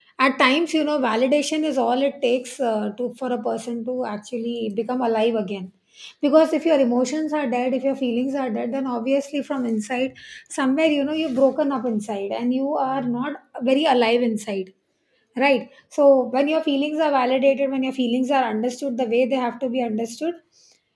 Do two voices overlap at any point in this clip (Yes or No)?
No